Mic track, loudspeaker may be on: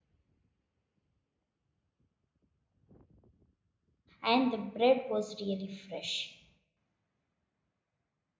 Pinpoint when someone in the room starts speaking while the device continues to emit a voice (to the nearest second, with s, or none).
4 s